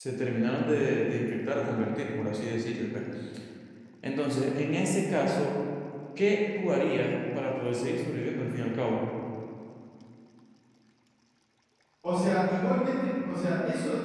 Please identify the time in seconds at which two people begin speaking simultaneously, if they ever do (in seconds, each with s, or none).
none